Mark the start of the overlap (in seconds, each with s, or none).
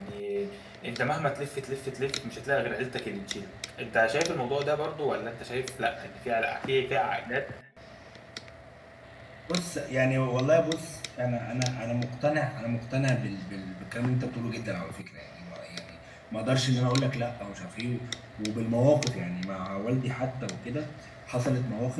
none